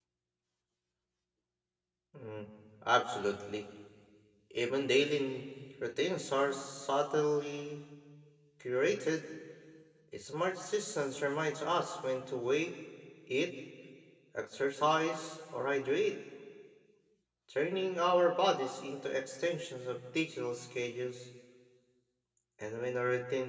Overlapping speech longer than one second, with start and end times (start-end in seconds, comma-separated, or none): none